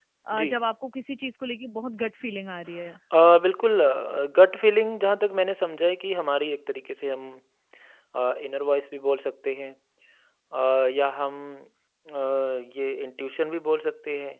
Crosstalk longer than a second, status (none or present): none